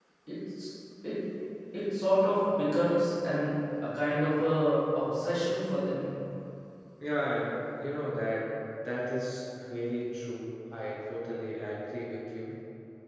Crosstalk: none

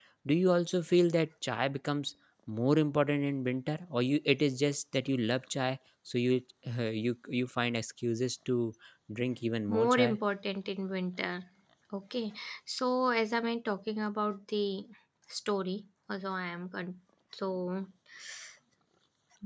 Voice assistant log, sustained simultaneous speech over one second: none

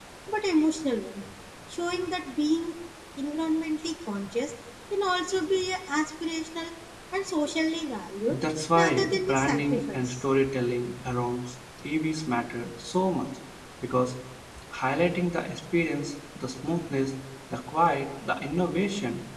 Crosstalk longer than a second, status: present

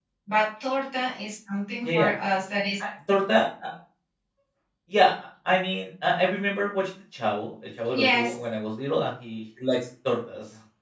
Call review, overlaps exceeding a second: none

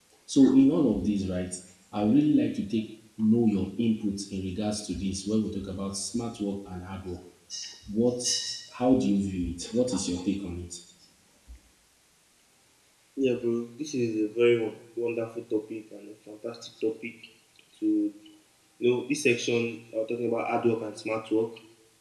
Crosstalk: none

